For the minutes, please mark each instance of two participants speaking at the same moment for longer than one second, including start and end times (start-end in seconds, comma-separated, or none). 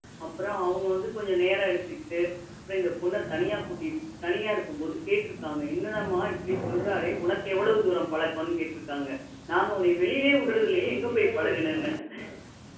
10.4-11.9